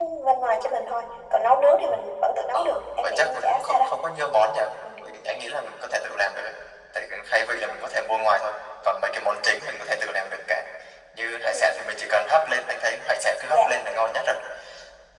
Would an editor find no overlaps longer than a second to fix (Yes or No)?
No